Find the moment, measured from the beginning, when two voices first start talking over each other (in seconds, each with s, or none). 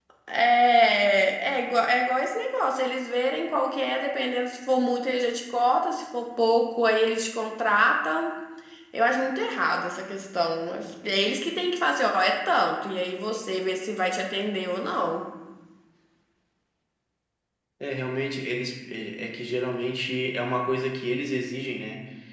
none